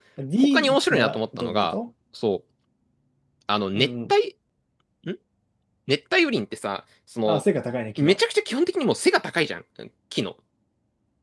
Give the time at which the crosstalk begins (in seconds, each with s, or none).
0.5 s